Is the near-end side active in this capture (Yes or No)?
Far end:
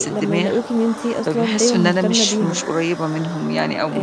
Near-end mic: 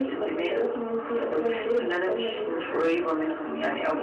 No